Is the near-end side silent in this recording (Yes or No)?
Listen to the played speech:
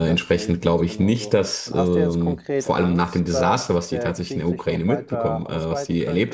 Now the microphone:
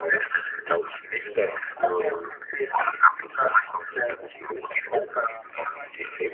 Yes